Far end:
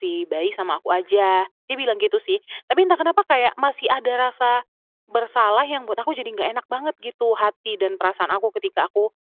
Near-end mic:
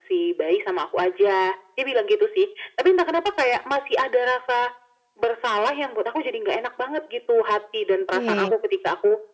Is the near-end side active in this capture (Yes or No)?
Yes